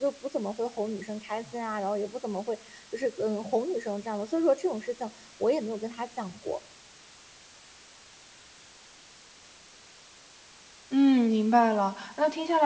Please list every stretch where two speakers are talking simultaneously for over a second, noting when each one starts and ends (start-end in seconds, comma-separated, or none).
none